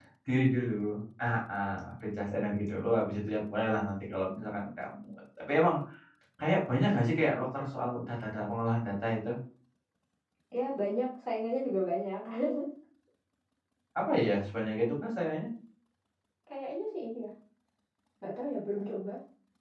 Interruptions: none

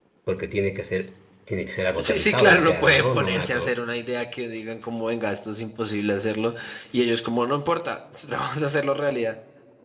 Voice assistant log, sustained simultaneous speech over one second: present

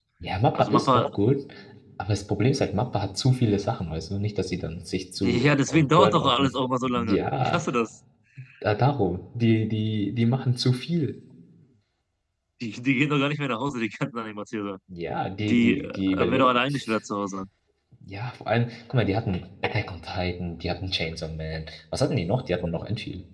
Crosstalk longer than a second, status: present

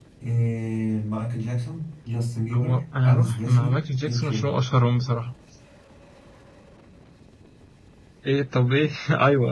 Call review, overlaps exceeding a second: present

